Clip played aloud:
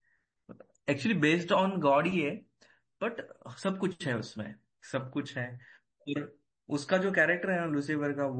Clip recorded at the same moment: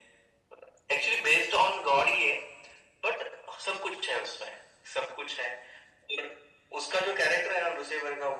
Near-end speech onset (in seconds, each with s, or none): none